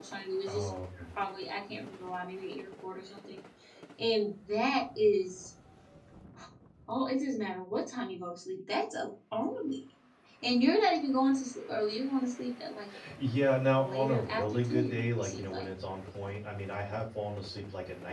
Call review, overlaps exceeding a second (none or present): present